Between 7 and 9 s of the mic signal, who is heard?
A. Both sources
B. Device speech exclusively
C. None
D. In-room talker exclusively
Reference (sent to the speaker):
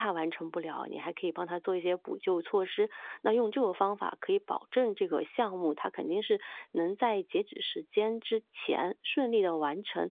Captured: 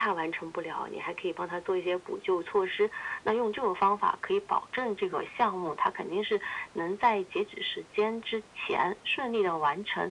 B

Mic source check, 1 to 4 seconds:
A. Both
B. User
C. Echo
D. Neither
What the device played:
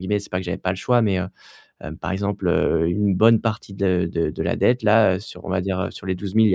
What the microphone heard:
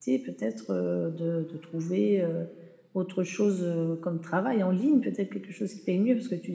B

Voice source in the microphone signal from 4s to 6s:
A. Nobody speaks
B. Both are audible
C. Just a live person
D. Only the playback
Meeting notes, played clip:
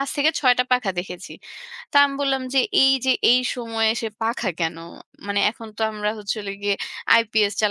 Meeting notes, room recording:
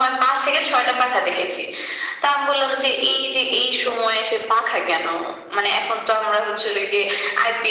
D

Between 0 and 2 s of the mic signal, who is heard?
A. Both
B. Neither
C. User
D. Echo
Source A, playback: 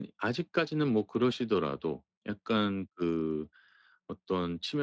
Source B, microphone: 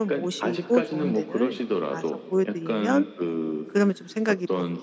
A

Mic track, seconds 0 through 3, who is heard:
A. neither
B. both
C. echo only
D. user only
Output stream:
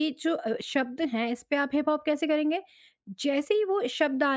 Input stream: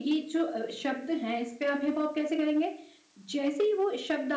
C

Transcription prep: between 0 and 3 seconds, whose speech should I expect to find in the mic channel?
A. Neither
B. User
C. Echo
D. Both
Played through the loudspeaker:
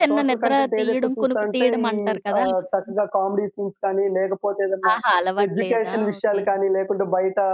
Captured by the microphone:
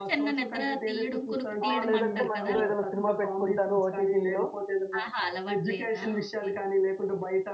D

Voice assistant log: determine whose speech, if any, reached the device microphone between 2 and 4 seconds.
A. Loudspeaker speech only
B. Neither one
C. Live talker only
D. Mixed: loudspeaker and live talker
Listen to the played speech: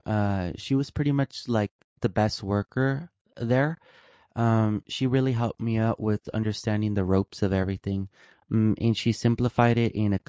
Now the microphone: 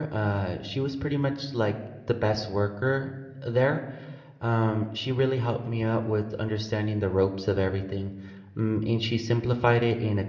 A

